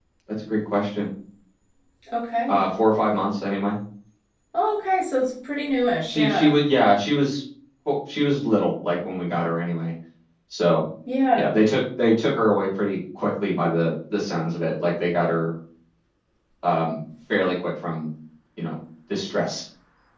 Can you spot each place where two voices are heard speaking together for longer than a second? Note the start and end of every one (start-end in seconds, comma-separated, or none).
none